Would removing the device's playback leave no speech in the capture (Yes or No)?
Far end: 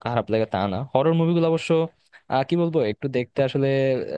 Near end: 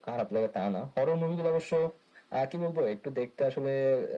Yes